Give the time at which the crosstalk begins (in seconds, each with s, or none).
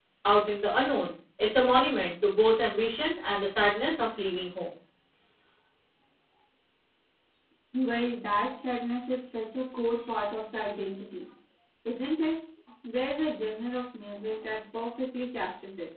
none